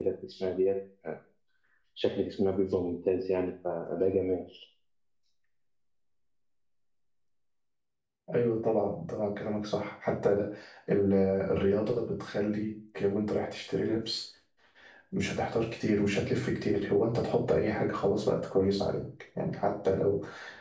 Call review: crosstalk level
none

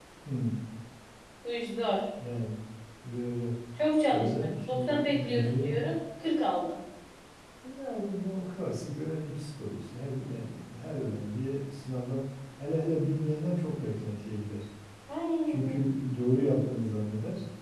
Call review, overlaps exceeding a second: present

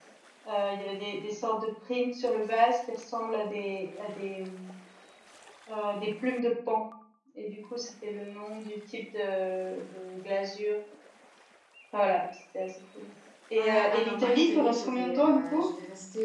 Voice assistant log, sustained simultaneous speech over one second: present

